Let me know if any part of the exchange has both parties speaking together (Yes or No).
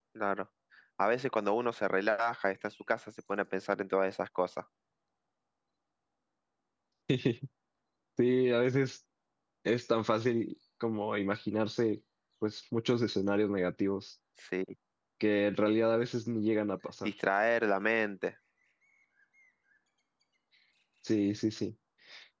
No